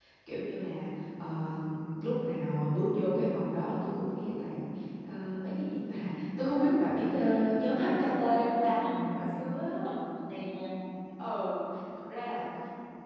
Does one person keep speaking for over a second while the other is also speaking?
Yes, from 7.7 s

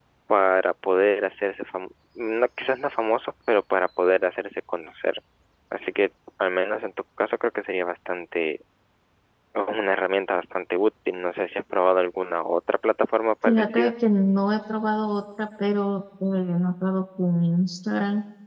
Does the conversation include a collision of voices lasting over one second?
No

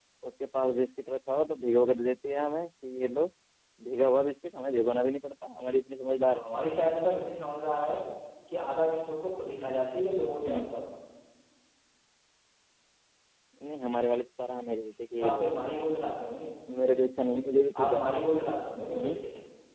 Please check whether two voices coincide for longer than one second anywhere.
No

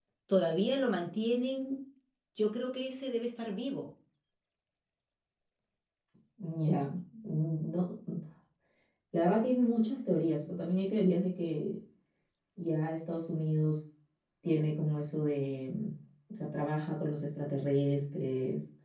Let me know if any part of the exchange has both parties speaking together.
No

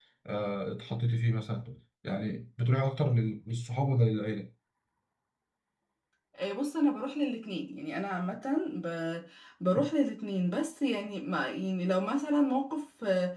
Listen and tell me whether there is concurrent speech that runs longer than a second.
No

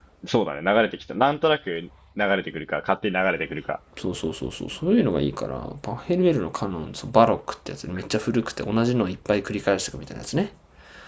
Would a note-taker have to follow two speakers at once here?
No

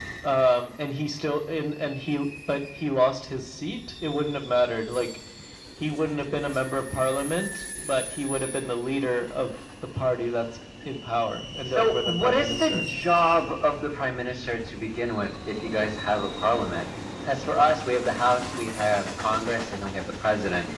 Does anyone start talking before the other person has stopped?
Yes, from 11.6 s

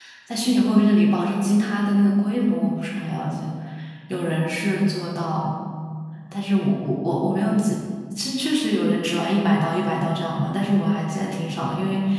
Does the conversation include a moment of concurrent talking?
No

